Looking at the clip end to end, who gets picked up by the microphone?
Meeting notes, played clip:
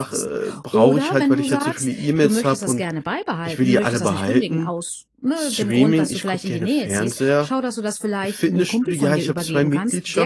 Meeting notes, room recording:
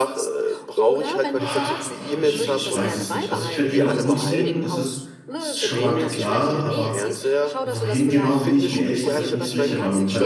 both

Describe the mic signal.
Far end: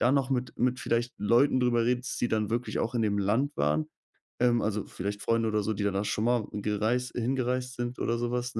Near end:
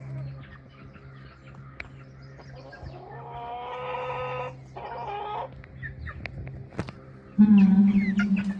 user only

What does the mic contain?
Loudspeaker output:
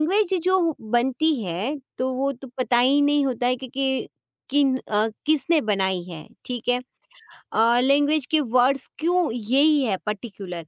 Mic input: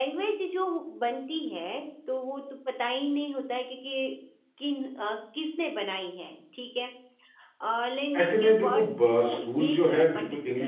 both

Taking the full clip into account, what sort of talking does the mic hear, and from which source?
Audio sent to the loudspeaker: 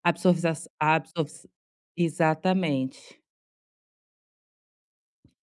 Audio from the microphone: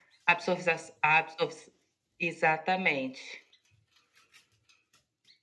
echo only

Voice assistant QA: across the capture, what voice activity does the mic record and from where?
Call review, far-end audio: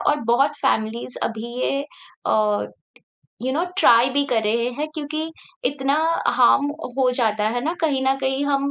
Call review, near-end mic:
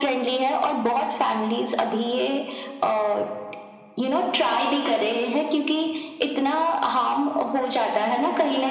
echo only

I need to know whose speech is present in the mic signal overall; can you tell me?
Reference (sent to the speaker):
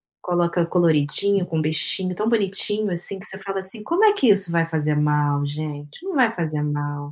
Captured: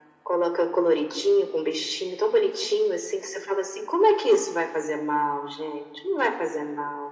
echo only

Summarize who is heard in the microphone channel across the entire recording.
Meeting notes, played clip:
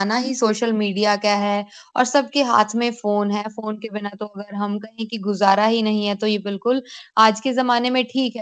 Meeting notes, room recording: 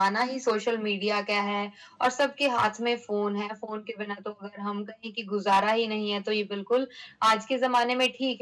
echo only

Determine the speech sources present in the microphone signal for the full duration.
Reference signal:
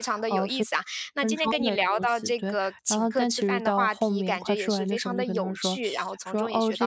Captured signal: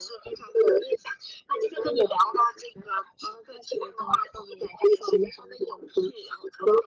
echo only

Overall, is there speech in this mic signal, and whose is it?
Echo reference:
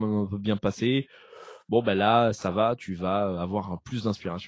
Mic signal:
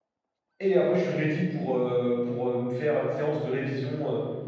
user only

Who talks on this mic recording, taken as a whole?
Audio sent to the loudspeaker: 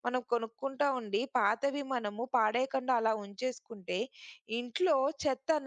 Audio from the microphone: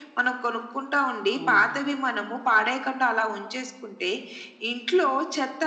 both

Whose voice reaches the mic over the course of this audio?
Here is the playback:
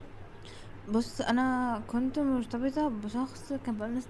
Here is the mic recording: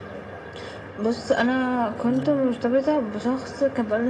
both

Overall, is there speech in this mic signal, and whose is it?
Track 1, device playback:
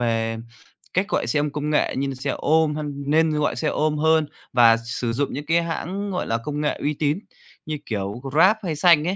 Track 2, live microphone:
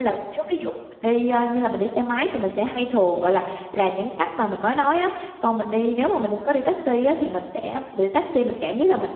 user only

